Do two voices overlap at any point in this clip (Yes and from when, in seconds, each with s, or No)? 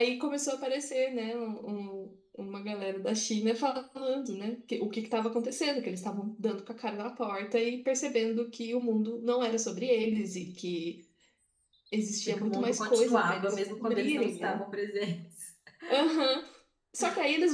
Yes, from 12.2 s